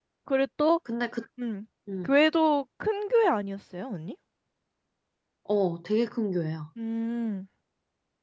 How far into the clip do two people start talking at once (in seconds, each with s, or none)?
none